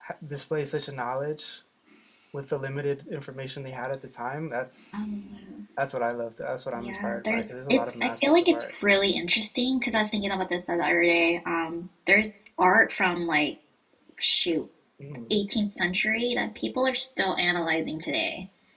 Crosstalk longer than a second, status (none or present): present